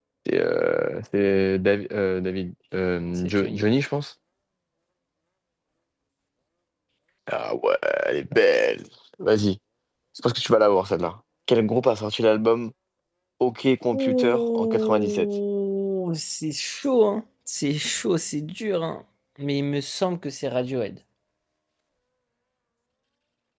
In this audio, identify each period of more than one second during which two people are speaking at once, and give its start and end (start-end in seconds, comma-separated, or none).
13.9-15.2